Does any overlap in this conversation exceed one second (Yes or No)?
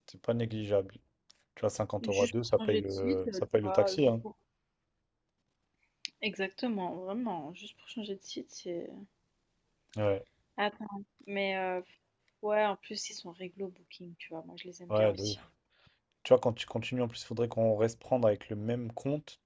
Yes